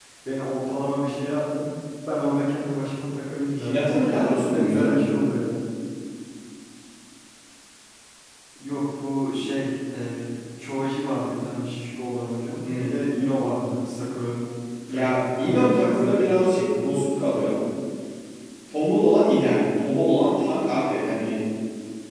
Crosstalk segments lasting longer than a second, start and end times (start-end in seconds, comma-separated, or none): 3.5-5.0, 14.9-16.8